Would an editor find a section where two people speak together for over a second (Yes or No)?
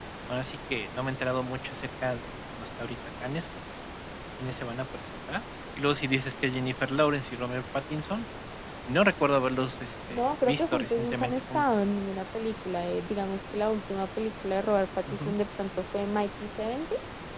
Yes